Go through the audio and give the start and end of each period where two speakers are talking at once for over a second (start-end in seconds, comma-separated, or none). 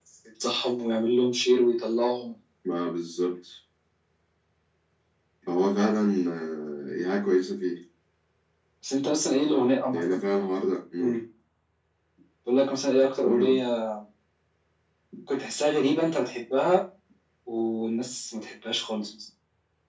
none